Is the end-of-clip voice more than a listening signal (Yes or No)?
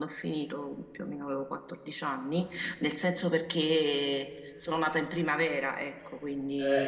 Yes